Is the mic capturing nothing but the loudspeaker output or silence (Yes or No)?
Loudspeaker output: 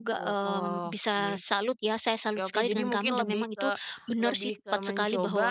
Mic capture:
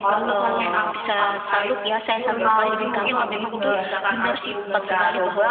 No